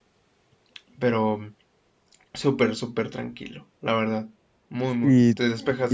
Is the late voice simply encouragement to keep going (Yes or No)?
No